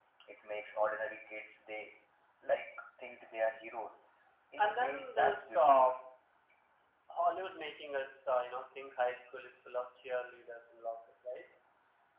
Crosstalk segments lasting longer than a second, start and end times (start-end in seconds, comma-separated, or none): 4.6-5.9